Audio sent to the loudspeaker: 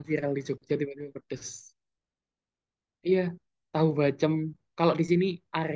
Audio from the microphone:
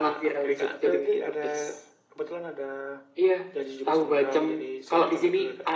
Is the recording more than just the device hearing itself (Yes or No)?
Yes